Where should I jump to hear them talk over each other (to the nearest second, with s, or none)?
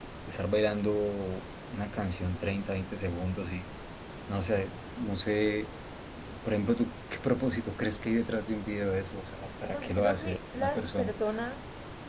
10 s